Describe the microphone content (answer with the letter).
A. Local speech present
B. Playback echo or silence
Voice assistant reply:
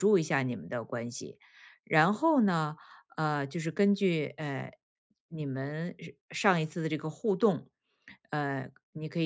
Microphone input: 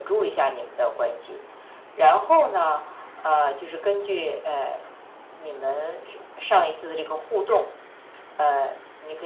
B